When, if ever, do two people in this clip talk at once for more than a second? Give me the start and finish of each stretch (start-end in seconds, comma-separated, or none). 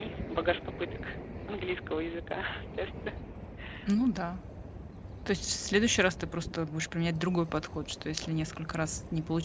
none